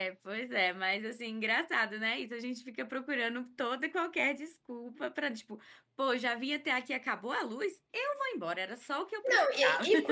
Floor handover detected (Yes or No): Yes